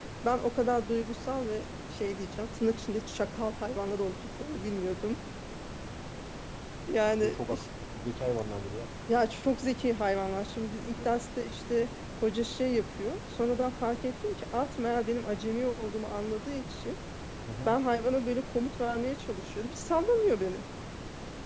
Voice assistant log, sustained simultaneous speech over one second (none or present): none